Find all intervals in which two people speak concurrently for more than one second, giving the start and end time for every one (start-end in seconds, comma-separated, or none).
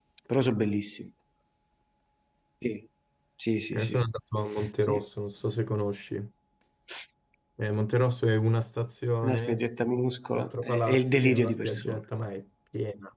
10.3-12.0